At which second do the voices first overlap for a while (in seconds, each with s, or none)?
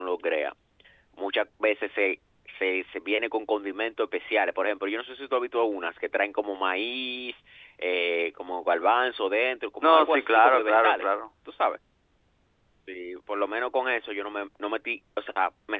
9.8 s